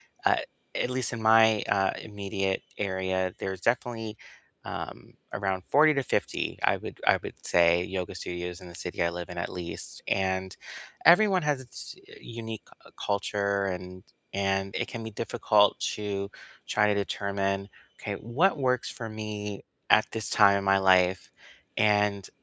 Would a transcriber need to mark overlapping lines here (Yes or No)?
No